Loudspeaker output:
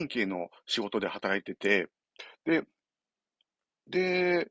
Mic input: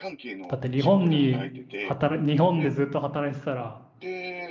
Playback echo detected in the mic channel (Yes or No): Yes